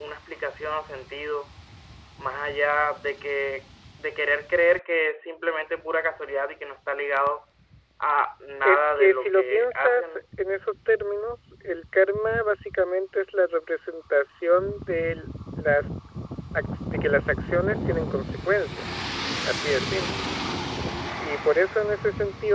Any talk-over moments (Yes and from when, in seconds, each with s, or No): Yes, from 8.6 s